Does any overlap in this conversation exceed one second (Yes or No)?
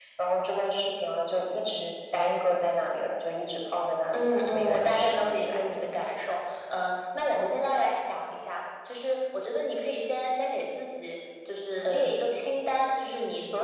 Yes